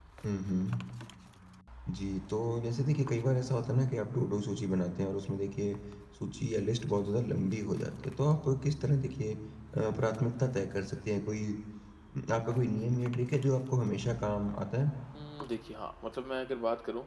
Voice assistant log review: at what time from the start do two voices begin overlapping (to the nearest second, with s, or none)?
none